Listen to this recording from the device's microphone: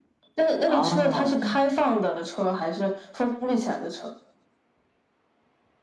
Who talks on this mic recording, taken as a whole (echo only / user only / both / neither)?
both